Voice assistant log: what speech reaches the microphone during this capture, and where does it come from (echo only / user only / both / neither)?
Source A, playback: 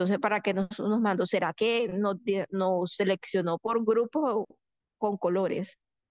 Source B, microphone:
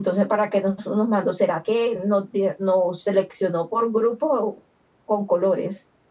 echo only